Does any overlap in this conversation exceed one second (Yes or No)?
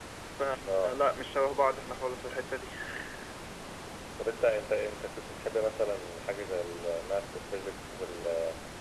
No